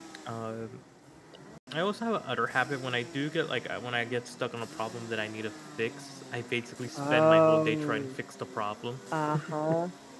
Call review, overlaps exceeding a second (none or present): present